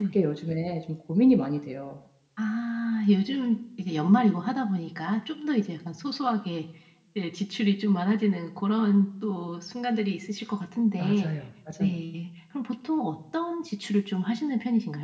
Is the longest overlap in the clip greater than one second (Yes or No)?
No